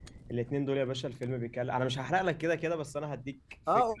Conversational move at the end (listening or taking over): taking over